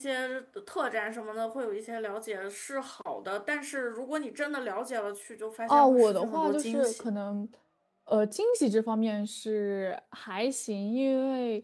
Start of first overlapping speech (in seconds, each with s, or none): 5.7 s